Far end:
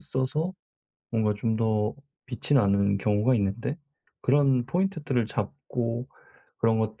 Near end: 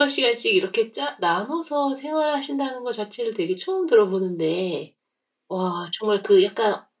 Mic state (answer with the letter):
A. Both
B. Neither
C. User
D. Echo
C